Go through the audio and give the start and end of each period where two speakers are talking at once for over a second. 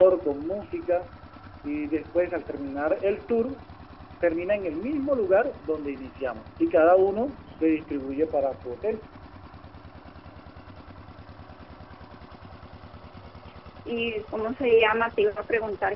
none

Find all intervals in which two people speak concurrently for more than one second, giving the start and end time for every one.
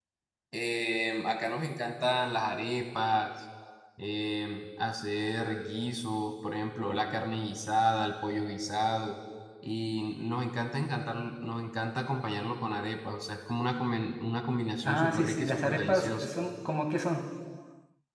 14.8-16.3

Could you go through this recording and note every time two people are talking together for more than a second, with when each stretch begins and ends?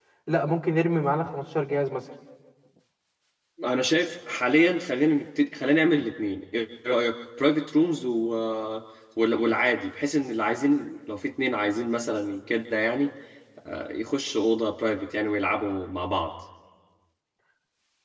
none

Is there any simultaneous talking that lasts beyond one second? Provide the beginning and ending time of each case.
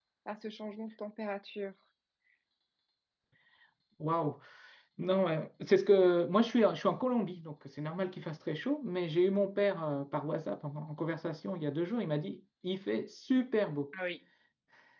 none

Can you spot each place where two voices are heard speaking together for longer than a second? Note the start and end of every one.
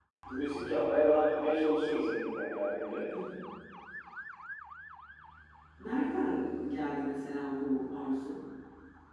none

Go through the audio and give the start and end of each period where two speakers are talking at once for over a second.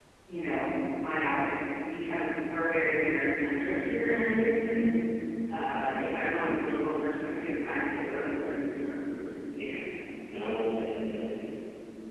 none

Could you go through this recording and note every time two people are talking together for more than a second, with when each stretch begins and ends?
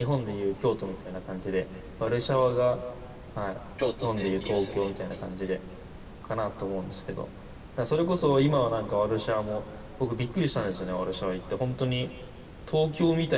4.0-5.3

